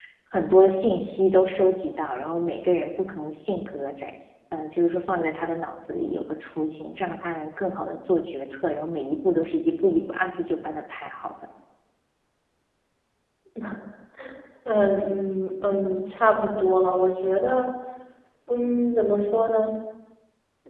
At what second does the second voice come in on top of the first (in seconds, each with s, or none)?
none